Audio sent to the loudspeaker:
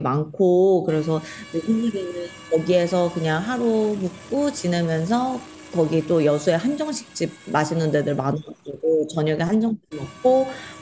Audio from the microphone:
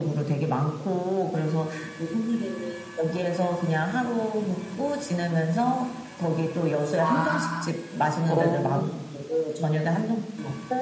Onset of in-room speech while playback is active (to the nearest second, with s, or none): 7 s